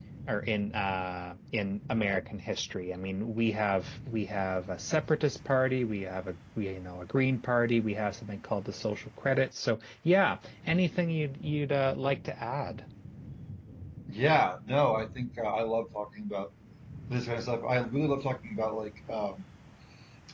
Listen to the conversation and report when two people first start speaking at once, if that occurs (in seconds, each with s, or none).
none